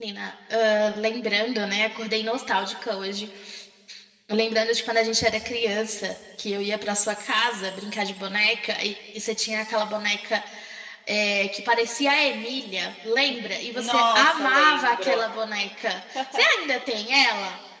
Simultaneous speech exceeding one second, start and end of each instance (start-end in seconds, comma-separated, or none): 13.8-15.2